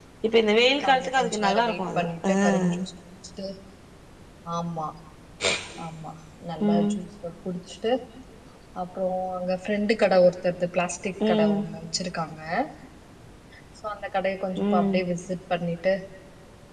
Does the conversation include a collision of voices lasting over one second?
Yes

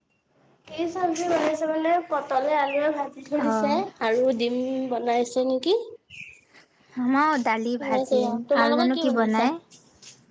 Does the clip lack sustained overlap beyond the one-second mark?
No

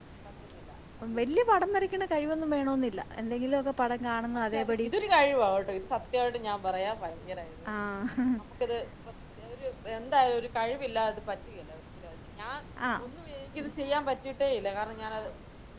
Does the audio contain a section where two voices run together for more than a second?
No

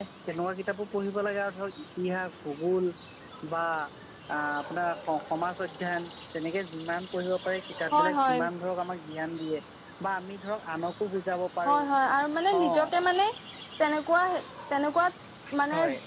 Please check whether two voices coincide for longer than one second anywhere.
No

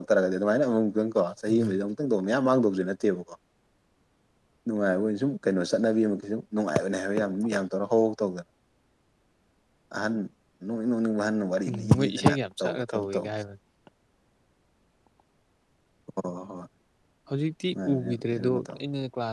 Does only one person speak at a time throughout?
No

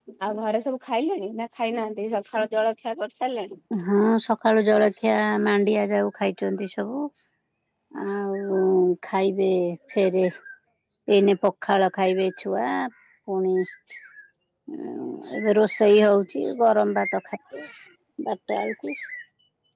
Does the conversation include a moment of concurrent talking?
No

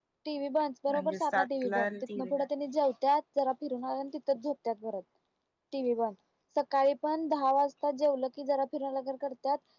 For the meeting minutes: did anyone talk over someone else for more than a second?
Yes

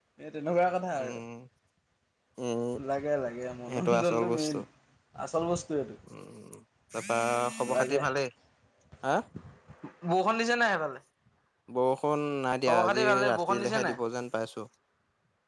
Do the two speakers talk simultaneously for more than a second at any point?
Yes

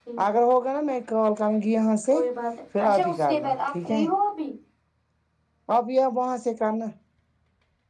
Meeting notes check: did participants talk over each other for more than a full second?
Yes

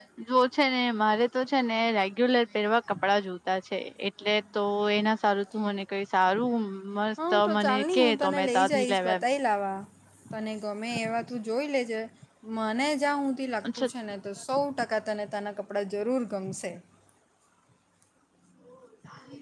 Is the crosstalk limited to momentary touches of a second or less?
No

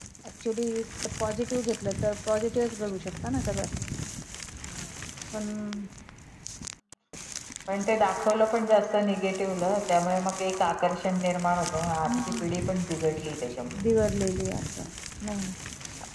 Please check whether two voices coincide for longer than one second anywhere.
No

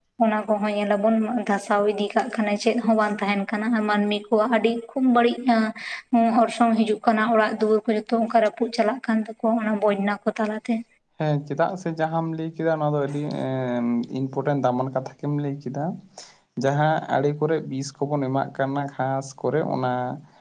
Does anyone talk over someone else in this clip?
No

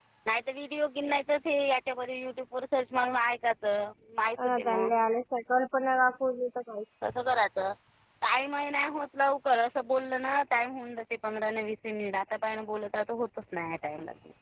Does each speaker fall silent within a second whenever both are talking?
Yes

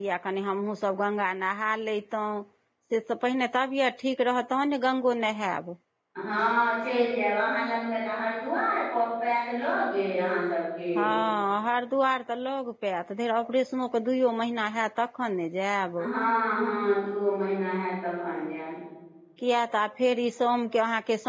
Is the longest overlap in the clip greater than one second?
No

